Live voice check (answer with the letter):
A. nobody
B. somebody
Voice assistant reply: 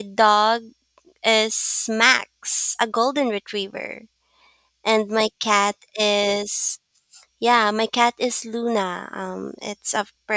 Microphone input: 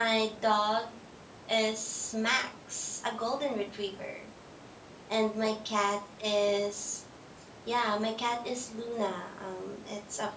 A